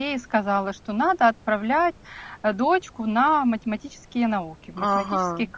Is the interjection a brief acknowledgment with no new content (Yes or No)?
No